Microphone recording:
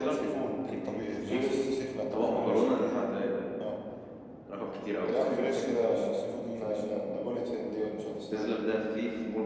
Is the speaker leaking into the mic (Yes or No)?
Yes